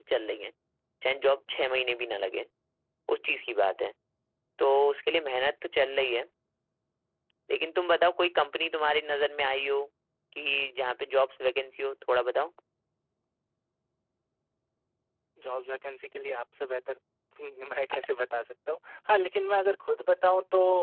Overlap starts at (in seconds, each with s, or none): none